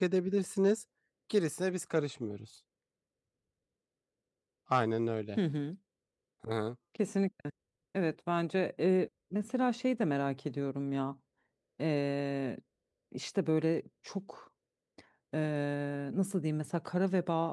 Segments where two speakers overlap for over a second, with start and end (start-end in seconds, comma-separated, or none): none